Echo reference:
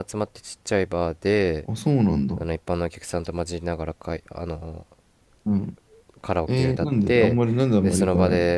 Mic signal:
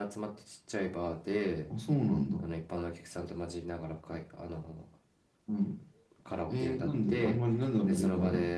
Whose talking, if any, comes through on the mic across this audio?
echo only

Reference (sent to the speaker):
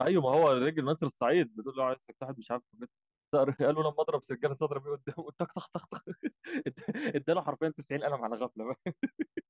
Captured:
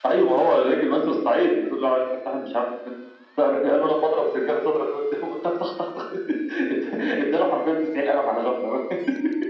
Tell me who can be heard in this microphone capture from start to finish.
echo only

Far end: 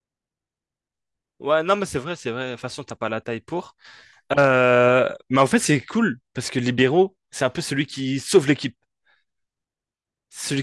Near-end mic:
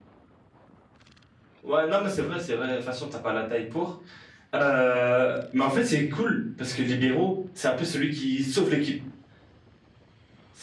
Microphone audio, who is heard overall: echo only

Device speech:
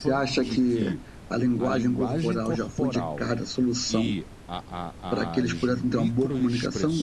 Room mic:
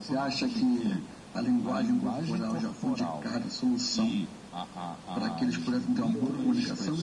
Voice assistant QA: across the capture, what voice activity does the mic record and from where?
both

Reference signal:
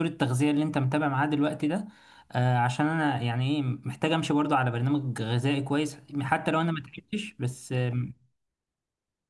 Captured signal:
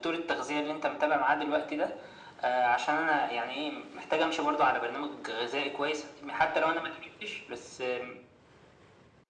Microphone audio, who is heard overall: echo only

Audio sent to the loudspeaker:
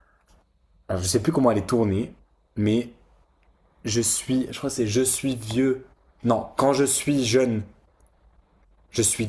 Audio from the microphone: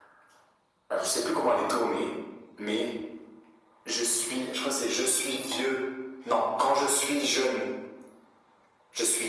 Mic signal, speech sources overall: echo only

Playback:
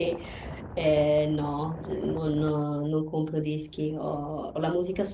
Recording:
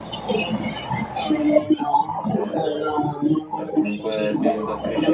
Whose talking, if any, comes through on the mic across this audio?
both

